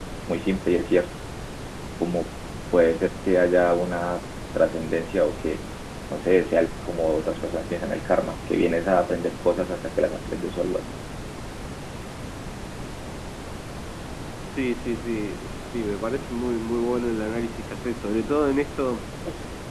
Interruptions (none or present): none